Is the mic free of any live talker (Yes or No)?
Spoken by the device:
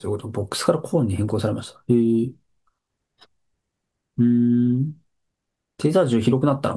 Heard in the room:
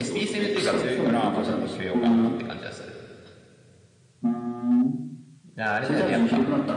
No